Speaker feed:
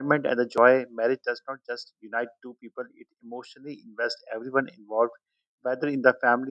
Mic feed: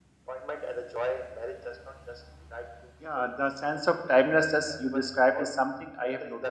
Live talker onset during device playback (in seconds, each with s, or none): 3.0 s